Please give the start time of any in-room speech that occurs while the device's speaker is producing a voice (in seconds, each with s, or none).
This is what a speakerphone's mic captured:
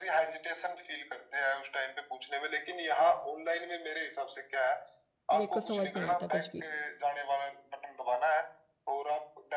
5.3 s